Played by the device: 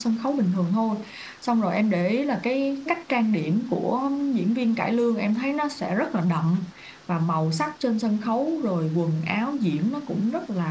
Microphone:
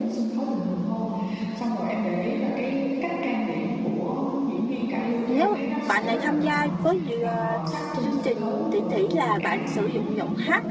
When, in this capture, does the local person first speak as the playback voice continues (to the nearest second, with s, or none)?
5 s